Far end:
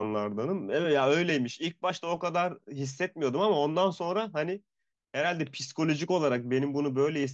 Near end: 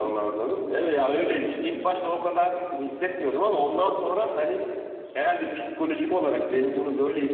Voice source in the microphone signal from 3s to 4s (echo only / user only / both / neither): echo only